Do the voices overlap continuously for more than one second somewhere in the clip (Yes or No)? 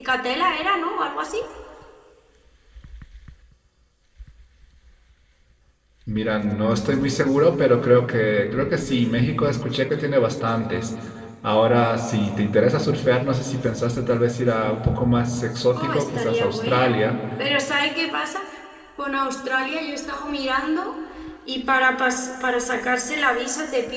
Yes